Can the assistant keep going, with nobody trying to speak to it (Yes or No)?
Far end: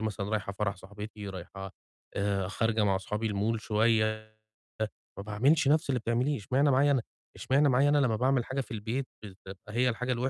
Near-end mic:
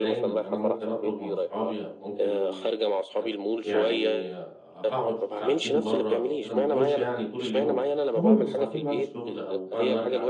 No